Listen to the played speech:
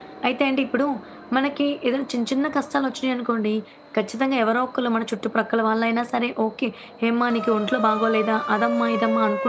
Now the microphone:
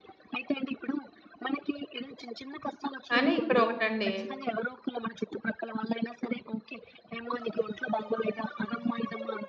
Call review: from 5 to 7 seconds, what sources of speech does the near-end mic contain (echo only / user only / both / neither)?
echo only